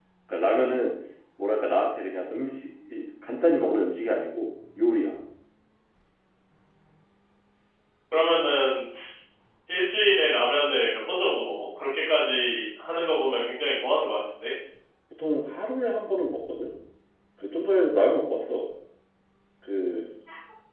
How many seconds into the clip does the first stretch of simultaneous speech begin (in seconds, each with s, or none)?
none